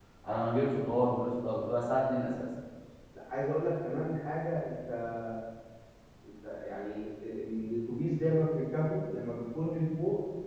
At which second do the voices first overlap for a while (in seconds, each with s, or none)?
none